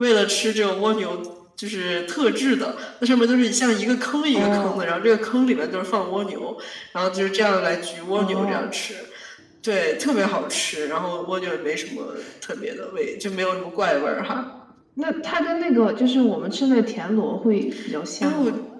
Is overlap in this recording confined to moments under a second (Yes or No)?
Yes